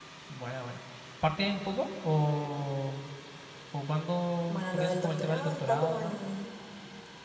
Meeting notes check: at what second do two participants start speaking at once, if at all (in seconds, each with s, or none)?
4.5 s